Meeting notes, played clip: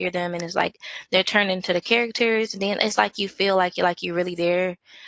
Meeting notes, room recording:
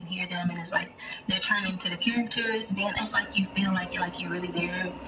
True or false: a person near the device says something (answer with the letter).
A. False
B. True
A